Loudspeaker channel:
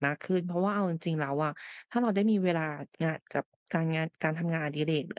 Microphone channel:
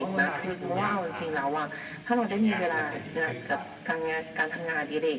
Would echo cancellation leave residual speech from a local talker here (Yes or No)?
Yes